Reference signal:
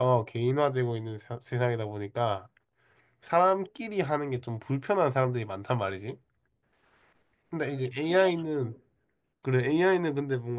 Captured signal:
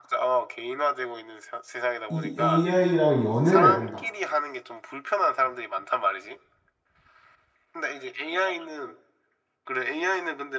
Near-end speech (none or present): present